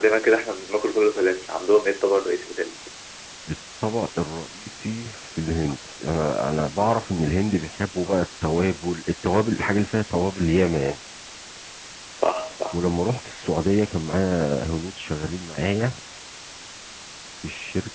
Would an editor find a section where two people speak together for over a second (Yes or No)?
No